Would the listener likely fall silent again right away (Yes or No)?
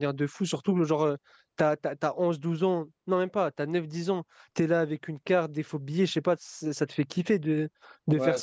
Yes